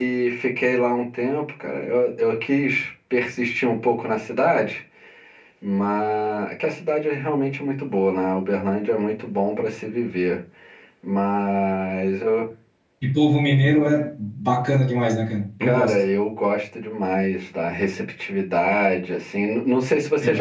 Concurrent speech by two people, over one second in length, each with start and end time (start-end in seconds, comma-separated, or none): none